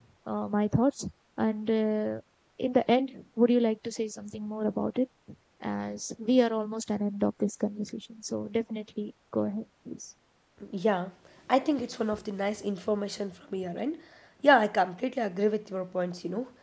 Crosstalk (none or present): none